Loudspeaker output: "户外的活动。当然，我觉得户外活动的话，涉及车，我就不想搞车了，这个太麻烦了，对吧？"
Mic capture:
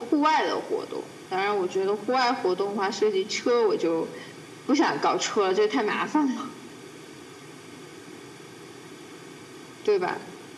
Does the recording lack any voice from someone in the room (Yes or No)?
Yes